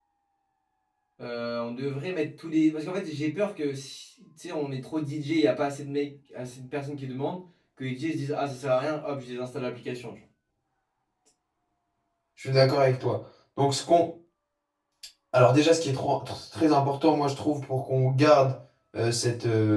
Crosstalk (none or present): none